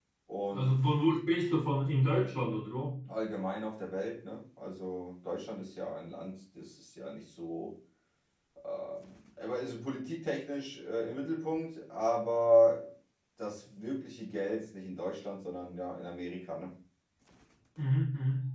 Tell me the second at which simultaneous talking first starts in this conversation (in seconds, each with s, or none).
none